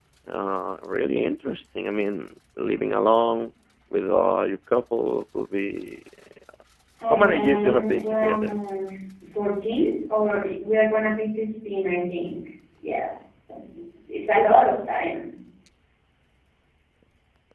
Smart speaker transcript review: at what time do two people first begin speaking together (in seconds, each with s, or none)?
7.1 s